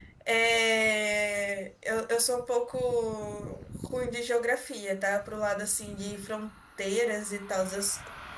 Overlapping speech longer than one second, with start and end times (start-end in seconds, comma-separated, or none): none